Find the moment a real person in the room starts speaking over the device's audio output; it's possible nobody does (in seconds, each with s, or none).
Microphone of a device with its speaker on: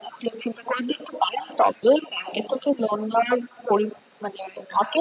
none